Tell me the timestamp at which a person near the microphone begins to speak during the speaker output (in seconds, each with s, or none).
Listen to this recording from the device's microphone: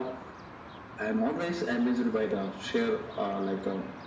none